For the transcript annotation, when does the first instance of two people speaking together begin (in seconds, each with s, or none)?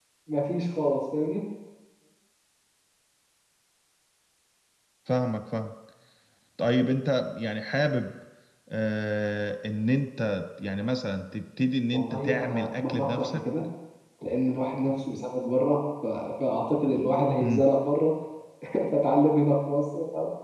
11.9 s